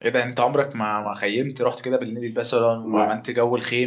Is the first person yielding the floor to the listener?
No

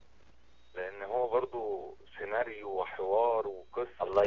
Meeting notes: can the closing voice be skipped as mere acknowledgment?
No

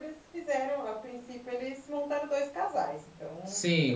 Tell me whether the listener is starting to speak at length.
Yes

